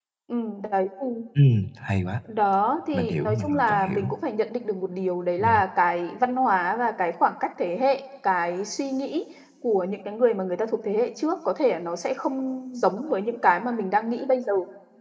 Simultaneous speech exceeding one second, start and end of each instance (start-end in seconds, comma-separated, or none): 2.9-4.1